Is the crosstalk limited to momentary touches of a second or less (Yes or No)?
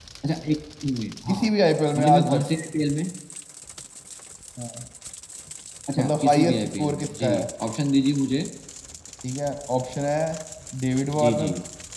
No